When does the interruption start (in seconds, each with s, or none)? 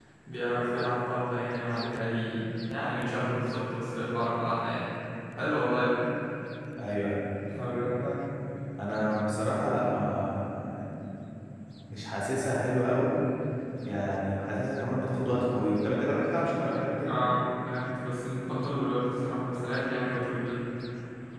none